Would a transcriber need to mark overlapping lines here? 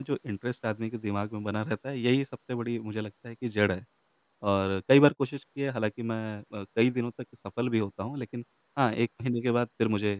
No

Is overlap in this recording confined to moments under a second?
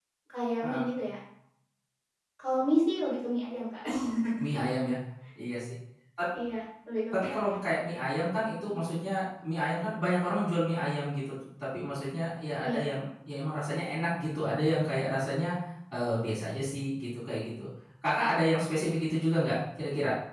Yes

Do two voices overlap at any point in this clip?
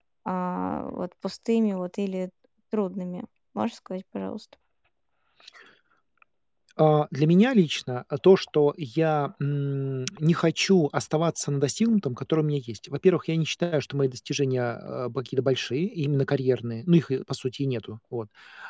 No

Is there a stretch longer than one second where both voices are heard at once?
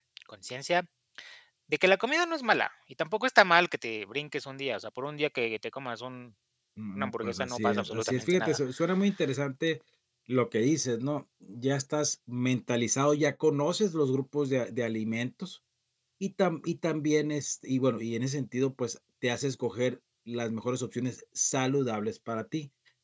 Yes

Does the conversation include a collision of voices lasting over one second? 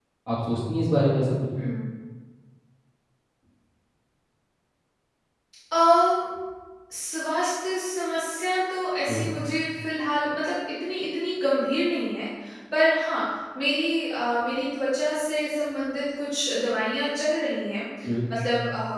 No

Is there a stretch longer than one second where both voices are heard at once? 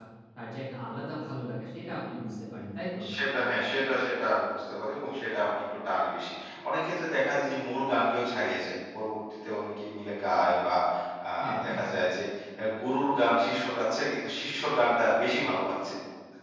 No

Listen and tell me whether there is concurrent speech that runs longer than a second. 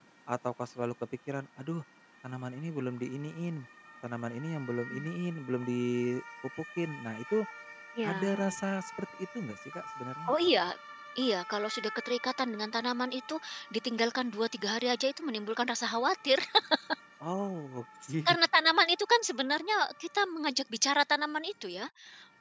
No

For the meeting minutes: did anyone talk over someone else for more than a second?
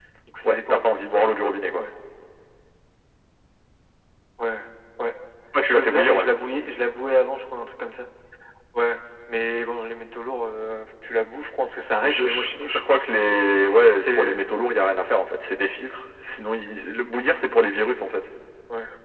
Yes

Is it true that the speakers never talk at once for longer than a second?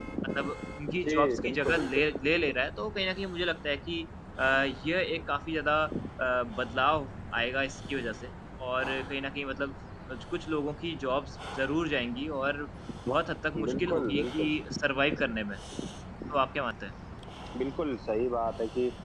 No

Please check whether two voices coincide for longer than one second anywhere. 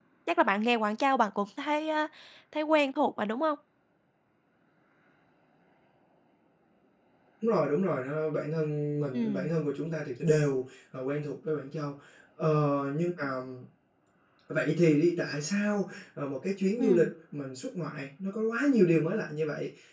No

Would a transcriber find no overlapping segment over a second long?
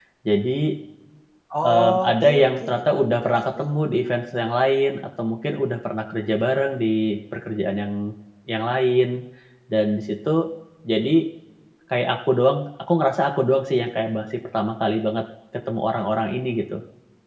No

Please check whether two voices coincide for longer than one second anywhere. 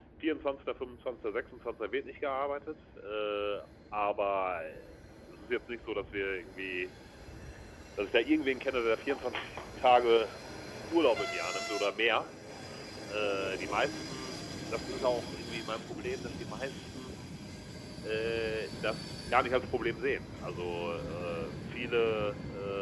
No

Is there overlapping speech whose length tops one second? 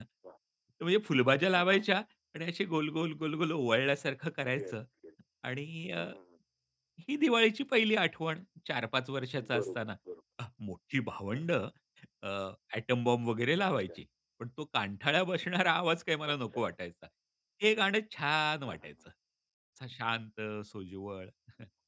No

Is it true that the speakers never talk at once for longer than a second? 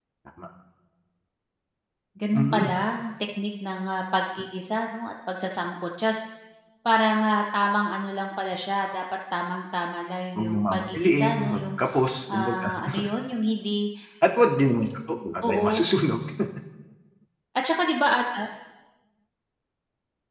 No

